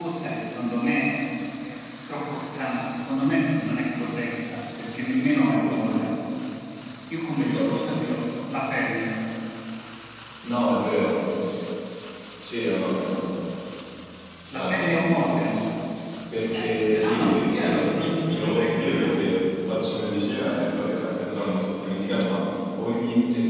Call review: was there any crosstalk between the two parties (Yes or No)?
Yes